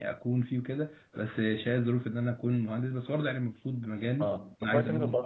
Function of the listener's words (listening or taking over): taking over